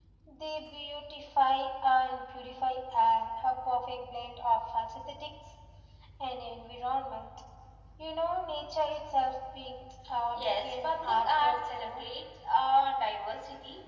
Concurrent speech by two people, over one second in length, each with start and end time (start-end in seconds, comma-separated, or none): 10.3-12.0